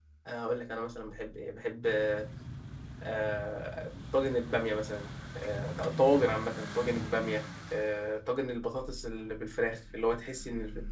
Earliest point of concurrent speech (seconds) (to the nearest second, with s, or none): none